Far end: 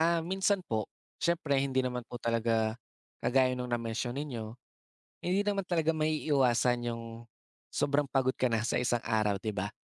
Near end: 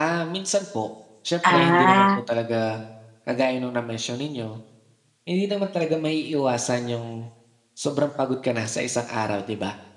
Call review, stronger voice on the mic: user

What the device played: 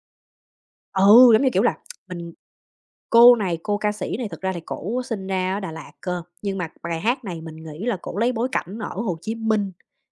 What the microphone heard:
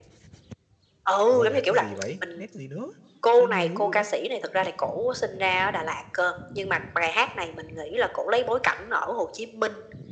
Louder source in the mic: echo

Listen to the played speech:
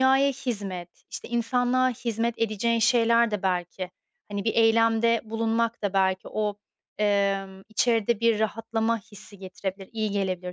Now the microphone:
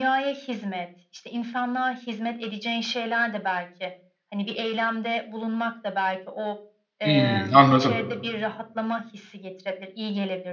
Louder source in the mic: user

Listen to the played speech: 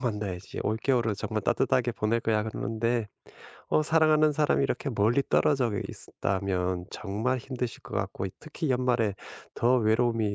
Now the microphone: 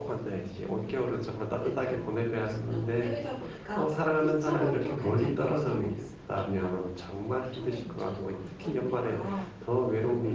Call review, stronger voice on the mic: echo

